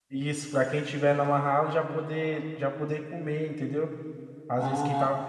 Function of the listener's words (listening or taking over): taking over